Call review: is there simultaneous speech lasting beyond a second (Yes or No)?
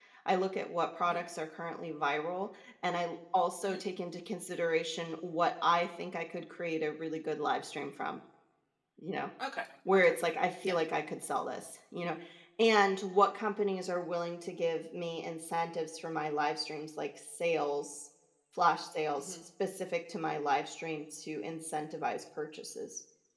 No